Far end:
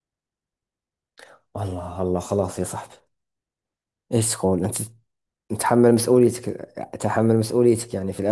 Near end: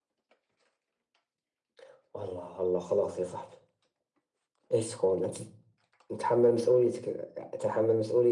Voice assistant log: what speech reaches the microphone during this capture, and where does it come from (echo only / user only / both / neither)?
echo only